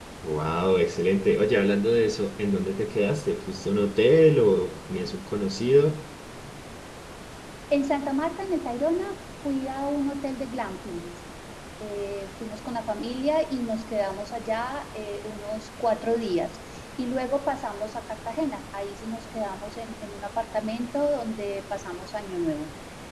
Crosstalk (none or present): none